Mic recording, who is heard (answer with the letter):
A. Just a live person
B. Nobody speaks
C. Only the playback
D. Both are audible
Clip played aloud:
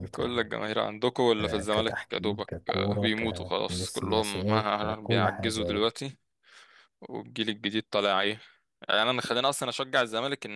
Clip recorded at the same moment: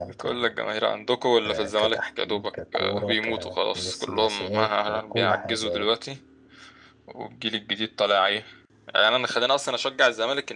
C